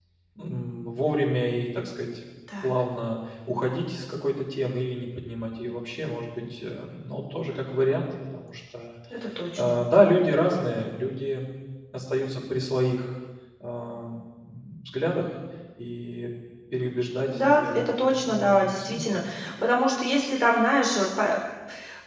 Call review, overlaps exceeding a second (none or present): present